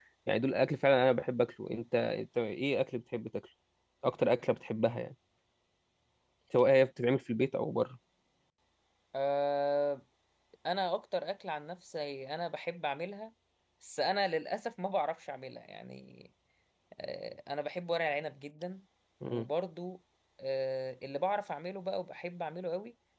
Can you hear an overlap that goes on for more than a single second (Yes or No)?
No